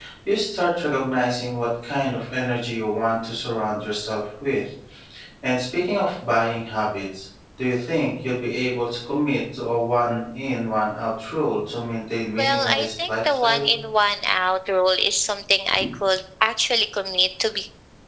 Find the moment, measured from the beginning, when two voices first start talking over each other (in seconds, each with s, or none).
12.4 s